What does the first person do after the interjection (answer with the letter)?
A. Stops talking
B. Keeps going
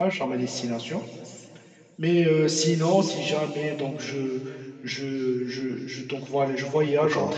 B